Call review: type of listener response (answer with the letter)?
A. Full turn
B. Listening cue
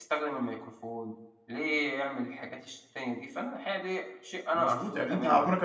A